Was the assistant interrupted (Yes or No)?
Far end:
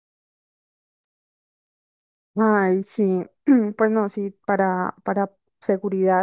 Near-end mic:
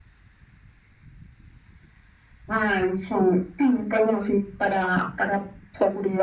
No